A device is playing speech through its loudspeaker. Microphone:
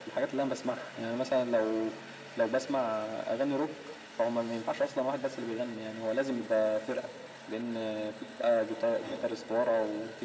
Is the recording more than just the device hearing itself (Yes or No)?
No